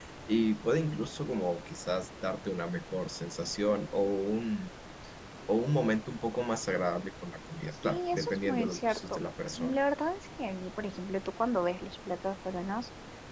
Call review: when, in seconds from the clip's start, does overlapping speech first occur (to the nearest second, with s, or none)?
8 s